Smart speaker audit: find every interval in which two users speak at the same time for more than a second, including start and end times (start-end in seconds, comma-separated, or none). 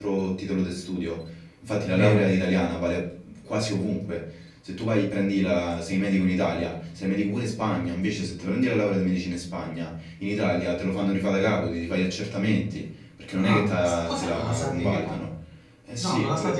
13.4-15.2